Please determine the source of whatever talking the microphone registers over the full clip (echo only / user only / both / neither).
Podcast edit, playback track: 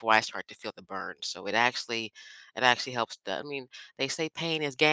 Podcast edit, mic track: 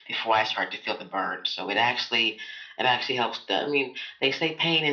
echo only